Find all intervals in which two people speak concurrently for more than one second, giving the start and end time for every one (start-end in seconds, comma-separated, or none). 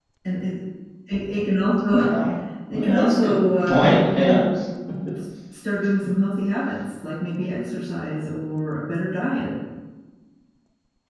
2.7-4.4